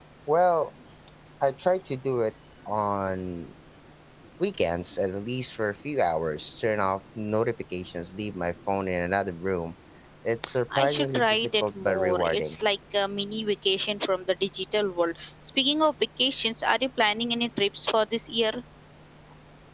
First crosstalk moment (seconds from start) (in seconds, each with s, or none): 10.8 s